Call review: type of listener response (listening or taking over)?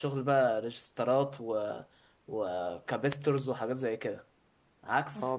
taking over